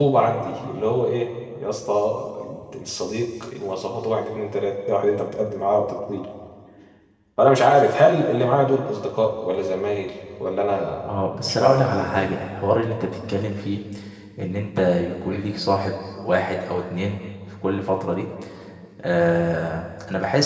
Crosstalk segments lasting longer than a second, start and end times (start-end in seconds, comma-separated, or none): 11.0-12.4